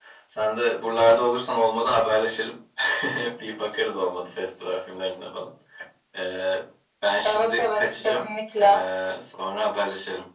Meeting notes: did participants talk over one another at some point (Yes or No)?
Yes